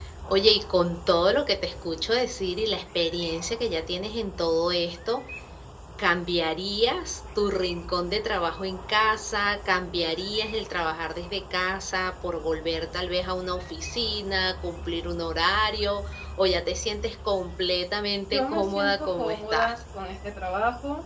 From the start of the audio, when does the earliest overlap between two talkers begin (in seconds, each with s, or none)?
18.3 s